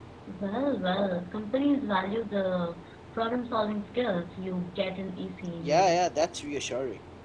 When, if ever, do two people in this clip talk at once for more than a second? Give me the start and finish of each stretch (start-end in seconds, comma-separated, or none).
none